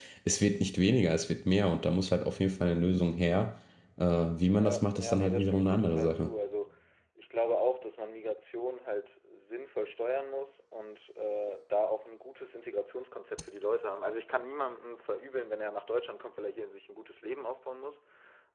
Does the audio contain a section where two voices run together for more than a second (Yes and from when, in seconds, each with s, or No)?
Yes, from 4.5 s